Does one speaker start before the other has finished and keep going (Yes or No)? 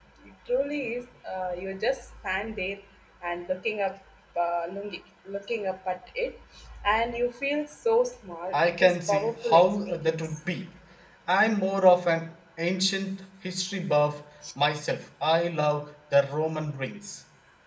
Yes